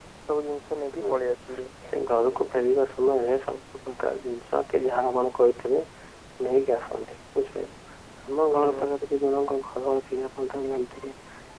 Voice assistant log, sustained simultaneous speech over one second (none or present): none